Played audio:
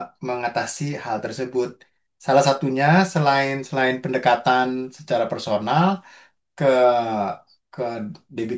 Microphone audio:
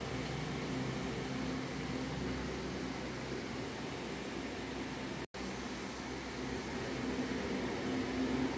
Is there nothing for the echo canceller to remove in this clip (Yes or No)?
Yes